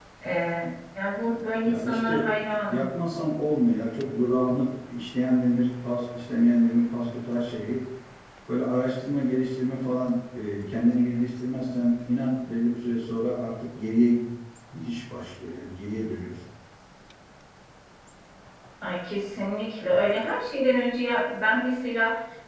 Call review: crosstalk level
present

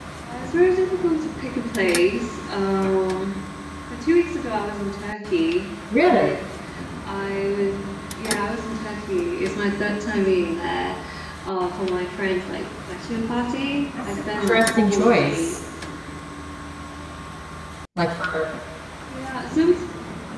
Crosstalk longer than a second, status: present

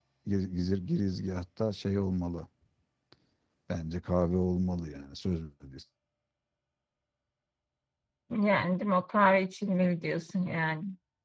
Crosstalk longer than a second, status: none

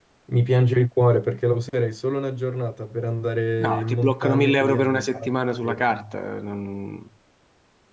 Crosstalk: present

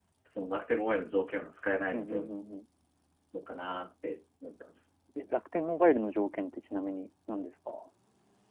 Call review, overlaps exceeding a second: none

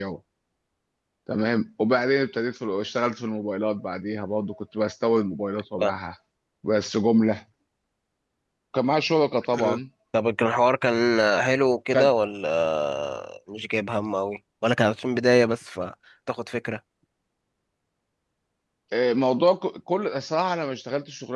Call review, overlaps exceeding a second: none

